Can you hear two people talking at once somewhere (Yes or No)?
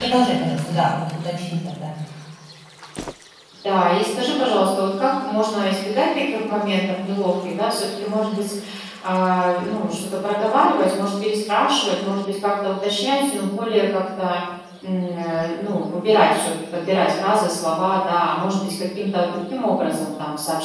No